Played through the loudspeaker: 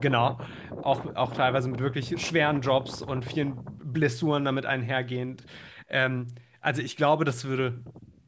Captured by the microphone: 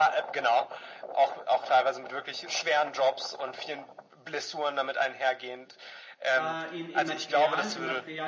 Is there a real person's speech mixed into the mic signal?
Yes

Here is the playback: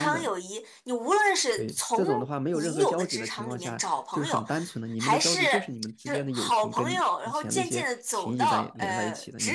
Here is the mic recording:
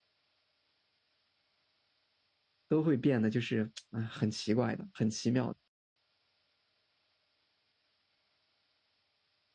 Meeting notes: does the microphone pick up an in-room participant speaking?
Yes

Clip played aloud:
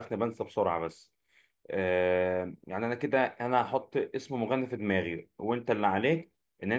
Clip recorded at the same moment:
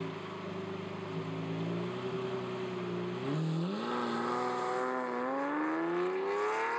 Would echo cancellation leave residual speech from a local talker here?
No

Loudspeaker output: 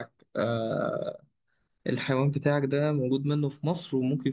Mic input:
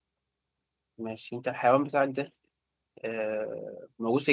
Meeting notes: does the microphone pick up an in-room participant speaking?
Yes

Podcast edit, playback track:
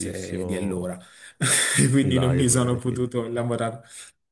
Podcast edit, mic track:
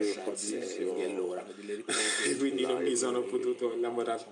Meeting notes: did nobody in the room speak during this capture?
No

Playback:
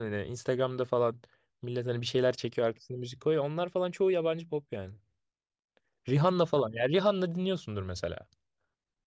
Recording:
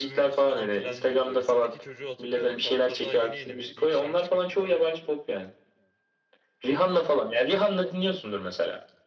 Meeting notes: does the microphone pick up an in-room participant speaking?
Yes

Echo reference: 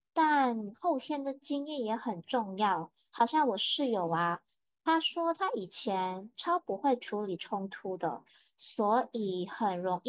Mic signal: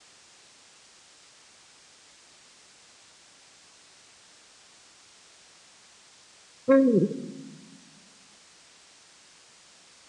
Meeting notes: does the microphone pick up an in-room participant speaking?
Yes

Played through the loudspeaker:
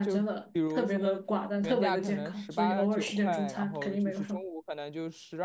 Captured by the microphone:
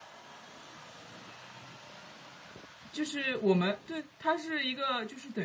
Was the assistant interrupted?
Yes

